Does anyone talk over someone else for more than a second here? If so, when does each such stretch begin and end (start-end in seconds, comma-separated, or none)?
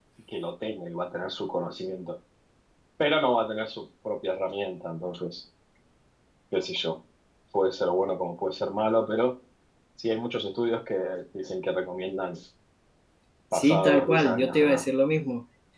13.5-14.8